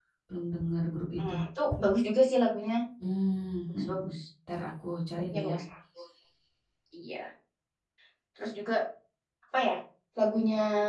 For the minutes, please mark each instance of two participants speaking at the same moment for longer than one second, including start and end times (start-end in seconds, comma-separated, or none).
none